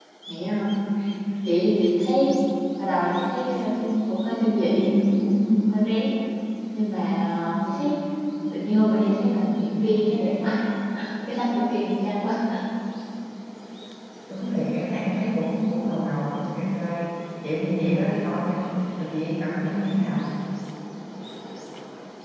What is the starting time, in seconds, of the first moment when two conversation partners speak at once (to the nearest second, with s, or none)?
none